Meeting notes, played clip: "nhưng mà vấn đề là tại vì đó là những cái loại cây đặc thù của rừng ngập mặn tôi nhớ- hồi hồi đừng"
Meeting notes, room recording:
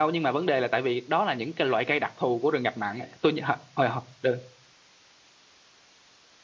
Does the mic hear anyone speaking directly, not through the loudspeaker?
No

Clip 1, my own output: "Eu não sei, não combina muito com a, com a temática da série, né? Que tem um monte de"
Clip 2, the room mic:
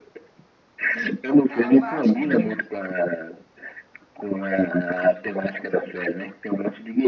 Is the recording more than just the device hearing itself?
Yes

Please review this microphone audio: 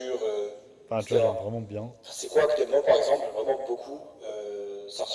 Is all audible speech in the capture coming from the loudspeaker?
No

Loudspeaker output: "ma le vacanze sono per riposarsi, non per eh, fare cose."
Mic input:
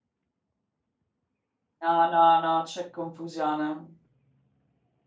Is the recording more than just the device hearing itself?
Yes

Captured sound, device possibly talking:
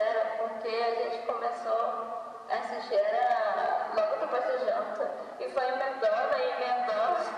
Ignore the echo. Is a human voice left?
No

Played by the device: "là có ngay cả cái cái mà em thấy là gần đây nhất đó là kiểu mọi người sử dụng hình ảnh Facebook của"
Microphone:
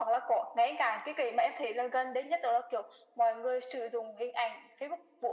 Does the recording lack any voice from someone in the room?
Yes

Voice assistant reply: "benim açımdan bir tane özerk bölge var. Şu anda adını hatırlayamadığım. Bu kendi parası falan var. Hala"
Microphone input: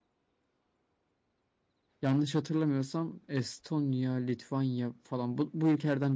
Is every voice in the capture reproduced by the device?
No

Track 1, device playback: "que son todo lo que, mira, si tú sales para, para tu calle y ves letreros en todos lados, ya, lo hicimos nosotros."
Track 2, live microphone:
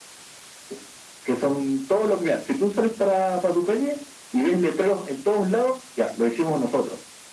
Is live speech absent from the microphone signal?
Yes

